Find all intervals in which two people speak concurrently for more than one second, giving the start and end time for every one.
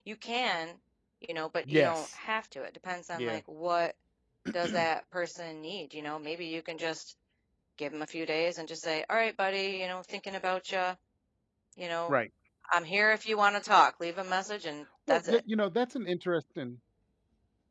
none

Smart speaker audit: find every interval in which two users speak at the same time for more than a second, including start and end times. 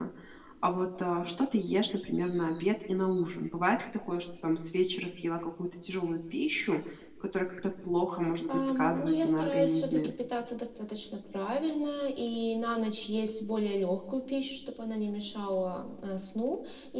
8.5-10.1

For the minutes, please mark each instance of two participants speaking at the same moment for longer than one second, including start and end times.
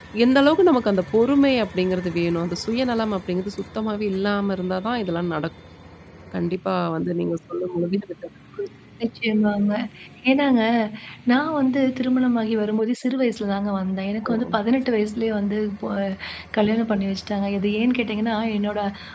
none

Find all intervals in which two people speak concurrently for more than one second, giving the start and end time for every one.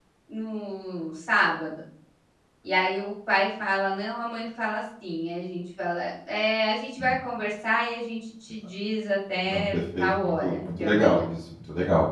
9.4-11.2

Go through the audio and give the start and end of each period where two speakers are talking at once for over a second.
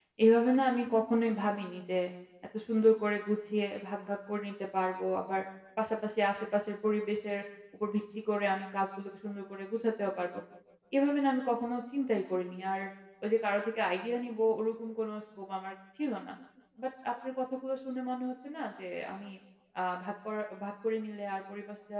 none

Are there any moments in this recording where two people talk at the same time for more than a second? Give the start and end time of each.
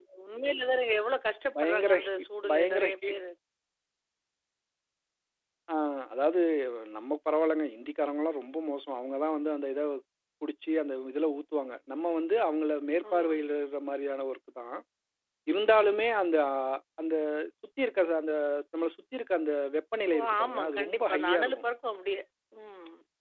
1.6-3.2, 20.1-21.6

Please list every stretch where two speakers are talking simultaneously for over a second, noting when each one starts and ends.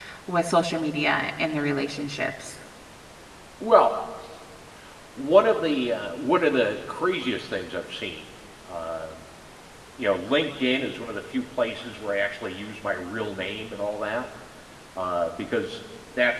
none

